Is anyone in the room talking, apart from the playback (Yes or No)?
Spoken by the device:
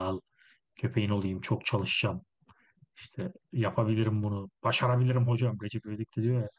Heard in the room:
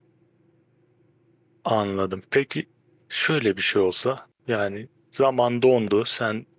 Yes